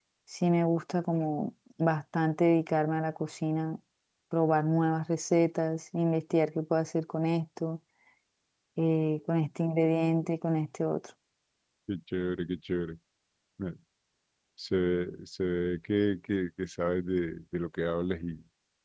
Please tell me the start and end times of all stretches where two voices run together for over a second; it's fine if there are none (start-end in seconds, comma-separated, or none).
none